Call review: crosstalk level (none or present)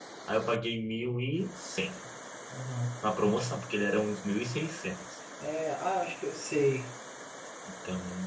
none